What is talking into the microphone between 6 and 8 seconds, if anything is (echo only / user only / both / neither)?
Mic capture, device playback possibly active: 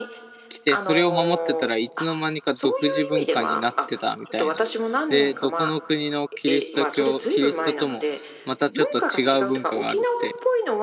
both